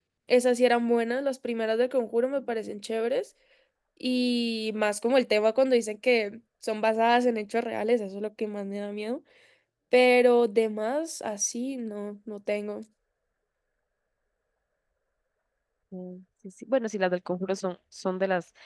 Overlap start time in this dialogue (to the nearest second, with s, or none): none